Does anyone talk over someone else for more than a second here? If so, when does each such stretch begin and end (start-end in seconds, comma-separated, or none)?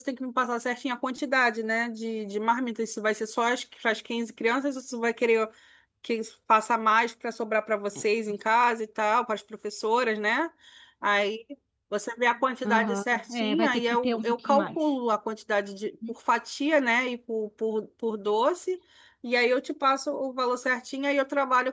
12.6-14.7